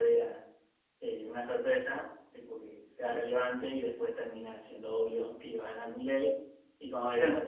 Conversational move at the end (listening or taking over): listening